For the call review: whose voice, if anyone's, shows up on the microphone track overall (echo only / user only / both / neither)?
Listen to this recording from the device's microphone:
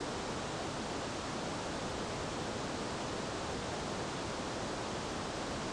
neither